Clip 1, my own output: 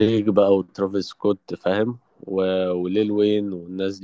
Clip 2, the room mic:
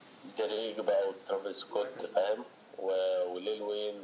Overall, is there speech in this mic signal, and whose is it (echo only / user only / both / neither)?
both